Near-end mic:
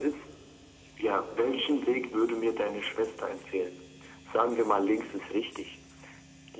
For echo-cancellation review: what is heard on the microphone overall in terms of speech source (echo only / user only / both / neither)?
echo only